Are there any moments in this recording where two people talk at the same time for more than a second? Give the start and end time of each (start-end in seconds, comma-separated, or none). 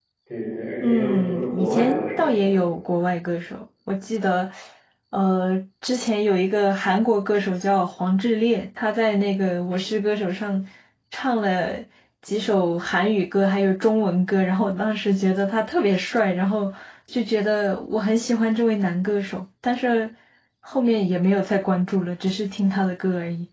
0.8-2.3